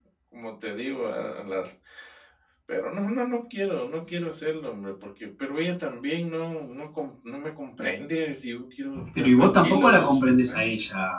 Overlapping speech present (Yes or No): Yes